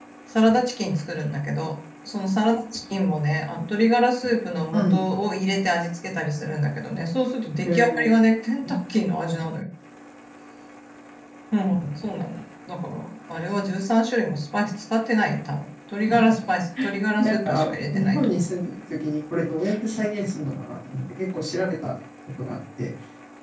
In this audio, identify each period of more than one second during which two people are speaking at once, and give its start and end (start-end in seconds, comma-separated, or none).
17.2-18.4